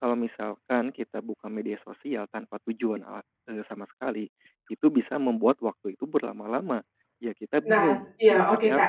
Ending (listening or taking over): taking over